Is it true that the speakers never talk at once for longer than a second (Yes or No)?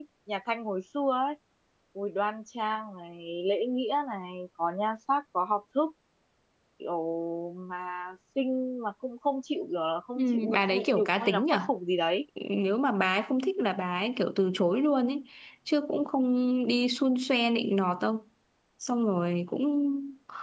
No